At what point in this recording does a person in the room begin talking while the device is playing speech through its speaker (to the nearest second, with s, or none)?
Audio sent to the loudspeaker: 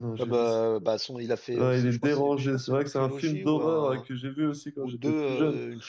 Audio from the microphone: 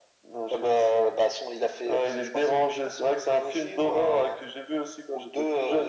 none